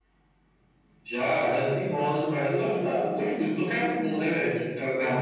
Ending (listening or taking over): taking over